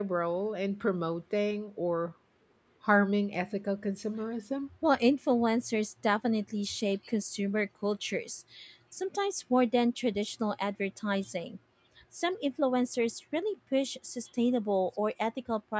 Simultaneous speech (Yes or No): No